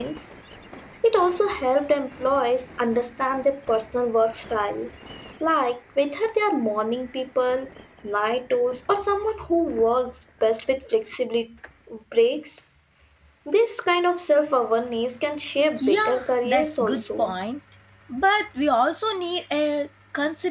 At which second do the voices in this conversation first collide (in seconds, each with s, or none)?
15.8 s